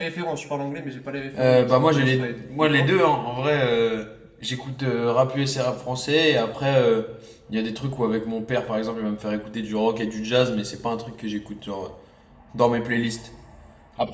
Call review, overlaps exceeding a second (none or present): present